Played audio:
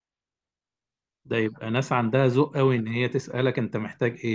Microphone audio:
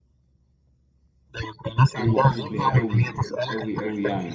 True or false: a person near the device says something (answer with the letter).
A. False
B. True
B